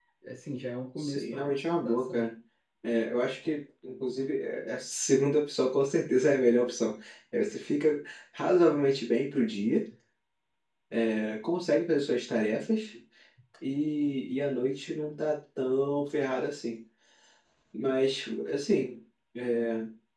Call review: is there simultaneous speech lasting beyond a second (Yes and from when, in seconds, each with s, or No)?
Yes, from 1.0 s